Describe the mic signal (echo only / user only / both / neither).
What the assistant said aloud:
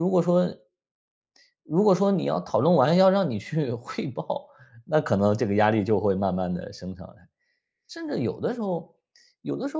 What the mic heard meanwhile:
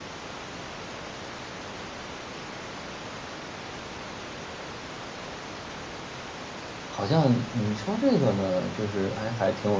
user only